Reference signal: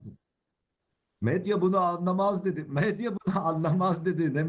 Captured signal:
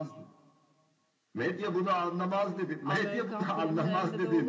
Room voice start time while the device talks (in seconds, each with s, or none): 2.8 s